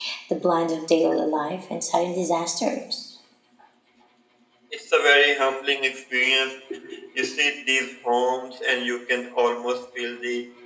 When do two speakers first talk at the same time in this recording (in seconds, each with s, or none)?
none